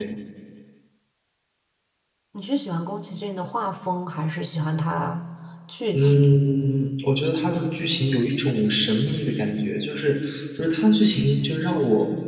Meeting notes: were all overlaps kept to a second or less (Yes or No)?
Yes